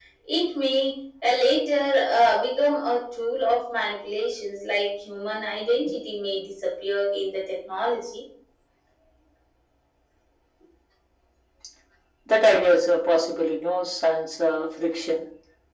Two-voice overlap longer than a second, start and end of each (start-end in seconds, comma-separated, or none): none